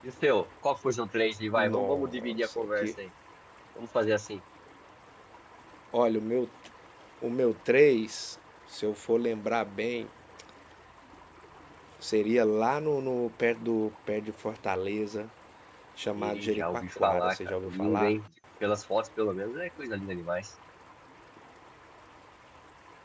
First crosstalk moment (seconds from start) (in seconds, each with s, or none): 1.5 s